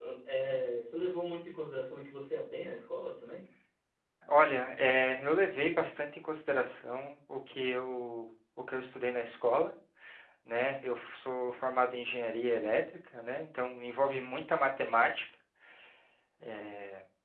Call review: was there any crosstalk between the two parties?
No

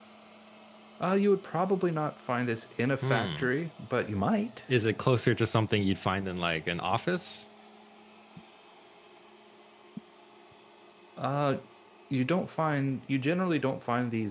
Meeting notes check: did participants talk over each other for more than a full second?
No

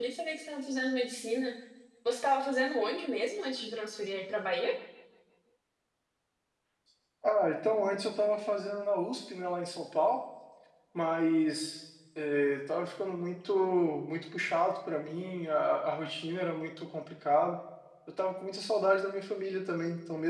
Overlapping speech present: No

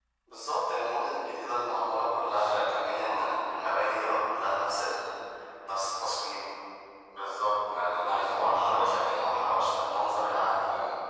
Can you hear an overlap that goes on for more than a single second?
Yes, from 2.3 s

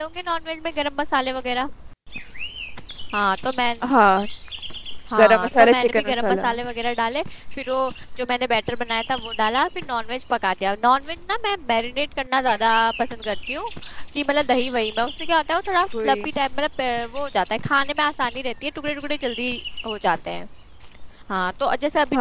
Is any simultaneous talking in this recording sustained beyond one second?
Yes, from 5.2 s

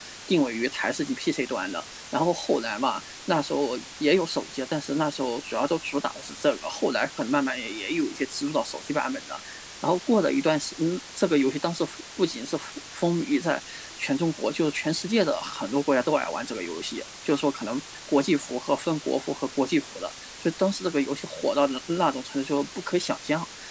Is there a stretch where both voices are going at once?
No

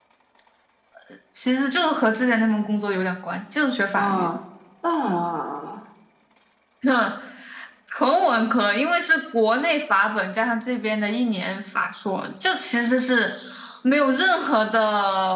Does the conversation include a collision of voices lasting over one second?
No

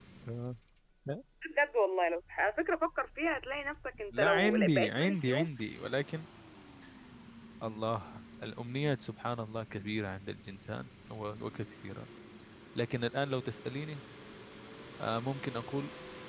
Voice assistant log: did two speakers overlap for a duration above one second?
Yes, from 4.1 s

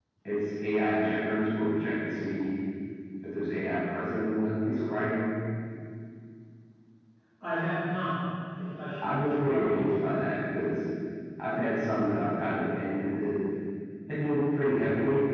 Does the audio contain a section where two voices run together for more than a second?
Yes, from 9.0 s

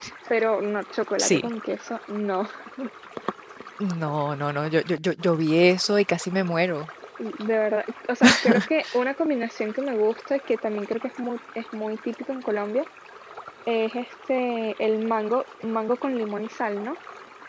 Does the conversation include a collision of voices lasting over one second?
No

